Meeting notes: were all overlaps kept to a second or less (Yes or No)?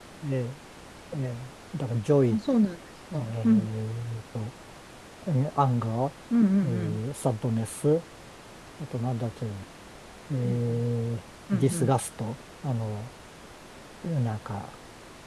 Yes